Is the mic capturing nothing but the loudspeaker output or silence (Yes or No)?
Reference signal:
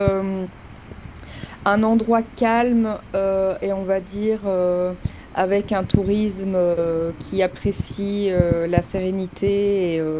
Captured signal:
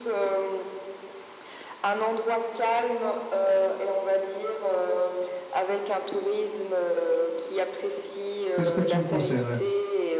No